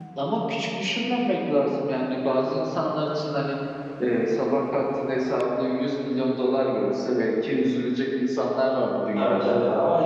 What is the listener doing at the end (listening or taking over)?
taking over